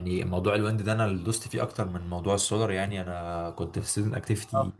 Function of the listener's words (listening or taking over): listening